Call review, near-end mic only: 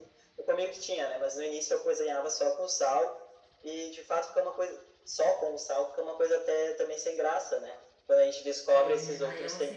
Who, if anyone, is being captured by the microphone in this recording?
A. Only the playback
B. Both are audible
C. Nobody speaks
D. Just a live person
B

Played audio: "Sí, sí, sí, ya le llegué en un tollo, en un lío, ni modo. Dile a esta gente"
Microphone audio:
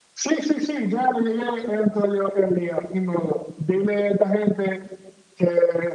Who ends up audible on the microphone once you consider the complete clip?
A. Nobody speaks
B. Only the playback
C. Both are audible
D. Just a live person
B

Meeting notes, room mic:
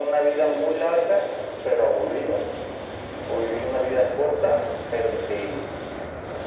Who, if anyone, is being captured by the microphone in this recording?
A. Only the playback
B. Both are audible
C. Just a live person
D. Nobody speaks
A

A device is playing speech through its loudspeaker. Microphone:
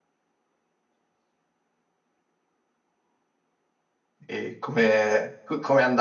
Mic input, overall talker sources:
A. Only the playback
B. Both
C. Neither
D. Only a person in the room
D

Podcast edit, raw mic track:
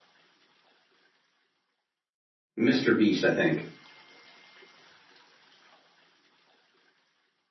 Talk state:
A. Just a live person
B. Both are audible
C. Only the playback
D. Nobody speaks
A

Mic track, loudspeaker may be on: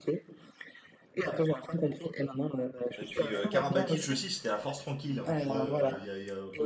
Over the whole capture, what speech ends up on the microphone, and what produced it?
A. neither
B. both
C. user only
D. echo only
B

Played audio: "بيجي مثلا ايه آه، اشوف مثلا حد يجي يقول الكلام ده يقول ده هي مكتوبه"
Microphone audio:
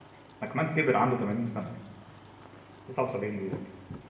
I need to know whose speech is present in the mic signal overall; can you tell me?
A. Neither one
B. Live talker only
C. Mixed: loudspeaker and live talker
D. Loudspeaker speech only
B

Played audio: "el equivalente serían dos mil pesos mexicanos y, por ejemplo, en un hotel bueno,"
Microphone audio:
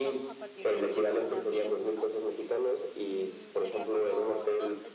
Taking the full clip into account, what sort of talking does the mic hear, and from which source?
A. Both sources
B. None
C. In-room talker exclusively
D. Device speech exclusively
A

